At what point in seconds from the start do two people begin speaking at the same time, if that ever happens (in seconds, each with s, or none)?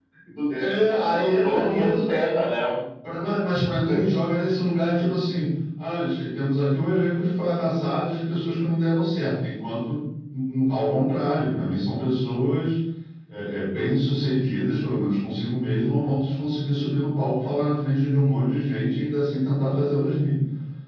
0.6 s